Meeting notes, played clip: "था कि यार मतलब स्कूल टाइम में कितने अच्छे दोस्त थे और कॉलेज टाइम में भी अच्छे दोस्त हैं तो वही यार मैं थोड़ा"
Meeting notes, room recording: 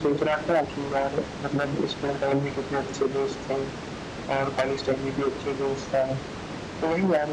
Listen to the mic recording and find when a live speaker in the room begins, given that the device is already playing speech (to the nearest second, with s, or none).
none